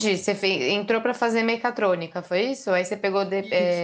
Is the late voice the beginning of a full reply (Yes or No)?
No